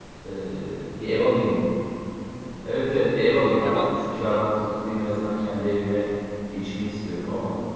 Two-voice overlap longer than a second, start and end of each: 3.6-5.0

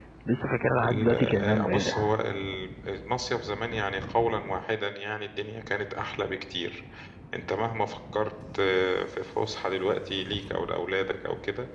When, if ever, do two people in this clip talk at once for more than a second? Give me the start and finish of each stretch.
0.8-2.1

